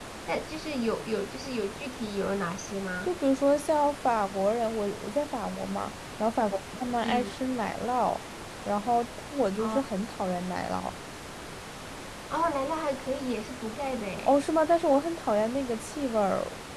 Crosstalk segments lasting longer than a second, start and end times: none

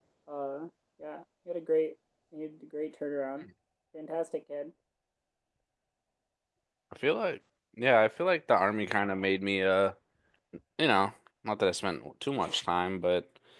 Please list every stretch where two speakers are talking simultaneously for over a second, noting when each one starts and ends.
none

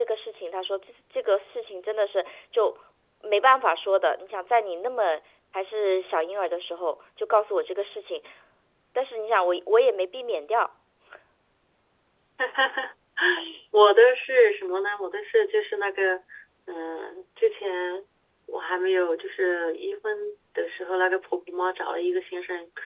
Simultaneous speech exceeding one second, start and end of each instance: none

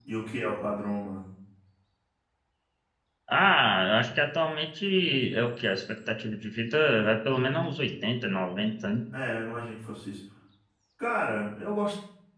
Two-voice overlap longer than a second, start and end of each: none

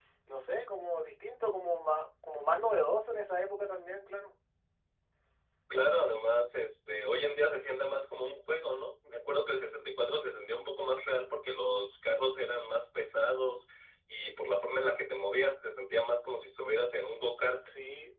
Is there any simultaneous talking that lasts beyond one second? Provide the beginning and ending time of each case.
none

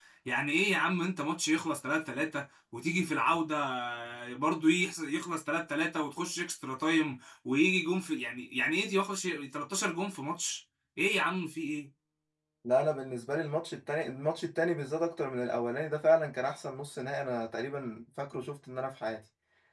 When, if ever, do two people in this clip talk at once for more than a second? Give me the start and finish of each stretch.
none

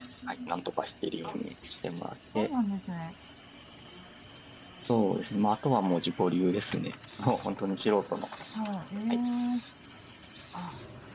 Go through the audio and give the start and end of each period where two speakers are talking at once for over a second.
none

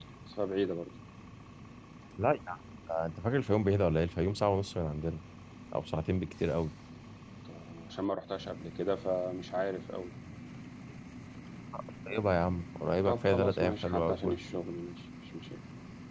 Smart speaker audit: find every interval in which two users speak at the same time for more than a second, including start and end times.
13.1-14.4

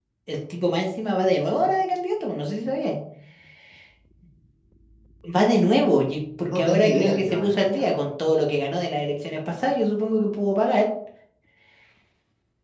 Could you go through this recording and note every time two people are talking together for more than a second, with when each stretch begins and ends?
6.4-8.0

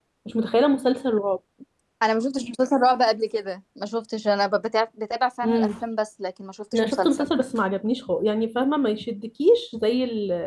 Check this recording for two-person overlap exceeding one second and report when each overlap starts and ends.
none

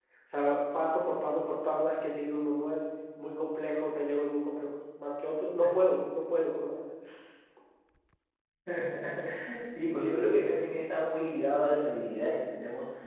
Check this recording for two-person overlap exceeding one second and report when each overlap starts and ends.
none

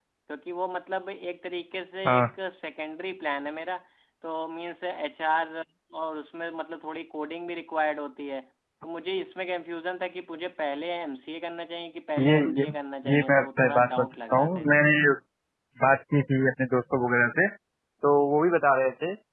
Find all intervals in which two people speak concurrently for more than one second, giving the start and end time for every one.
13.1-14.9

